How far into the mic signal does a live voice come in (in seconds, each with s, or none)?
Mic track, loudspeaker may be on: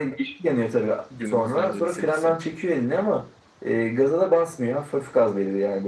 1.1 s